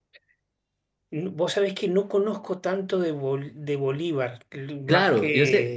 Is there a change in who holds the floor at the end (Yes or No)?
Yes